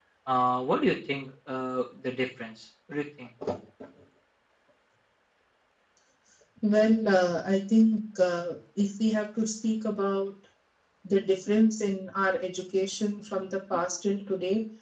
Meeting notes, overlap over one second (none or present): none